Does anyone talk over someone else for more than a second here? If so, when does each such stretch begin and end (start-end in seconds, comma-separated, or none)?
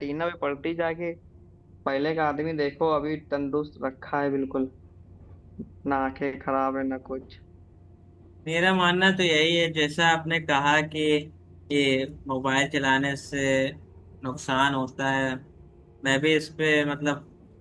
none